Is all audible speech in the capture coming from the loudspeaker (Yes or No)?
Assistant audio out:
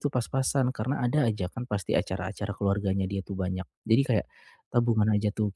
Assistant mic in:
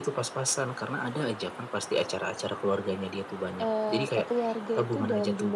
No